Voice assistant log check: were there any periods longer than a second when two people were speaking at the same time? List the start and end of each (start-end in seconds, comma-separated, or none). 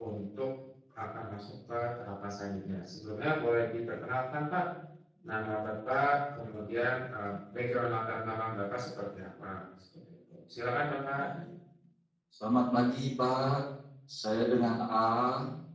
none